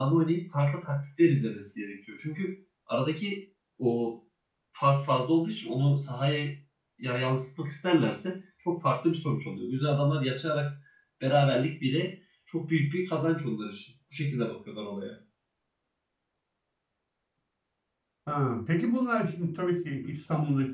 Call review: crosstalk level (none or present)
none